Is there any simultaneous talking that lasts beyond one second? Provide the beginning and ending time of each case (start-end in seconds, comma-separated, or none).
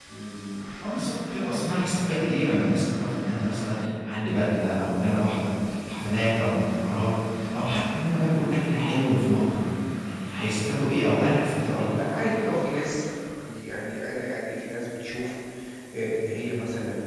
none